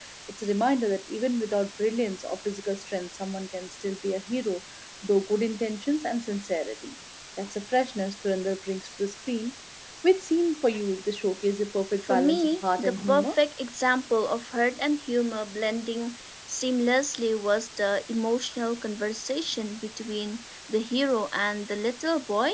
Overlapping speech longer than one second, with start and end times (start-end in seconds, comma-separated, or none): 12.1-13.3